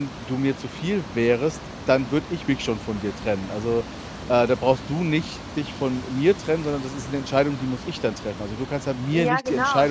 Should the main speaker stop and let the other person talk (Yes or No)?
Yes